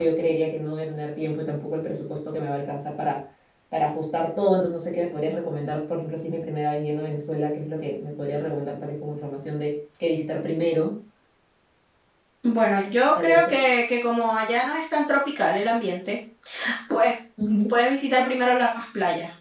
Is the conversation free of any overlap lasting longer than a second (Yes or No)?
Yes